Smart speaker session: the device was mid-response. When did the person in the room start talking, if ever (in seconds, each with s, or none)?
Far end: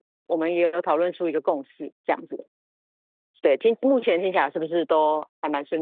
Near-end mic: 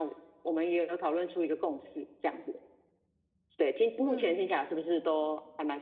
4.0 s